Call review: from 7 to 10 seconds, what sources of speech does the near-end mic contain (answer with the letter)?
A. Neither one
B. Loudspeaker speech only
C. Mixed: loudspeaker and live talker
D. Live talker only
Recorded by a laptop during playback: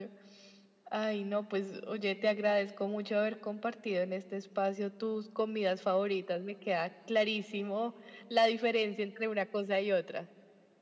B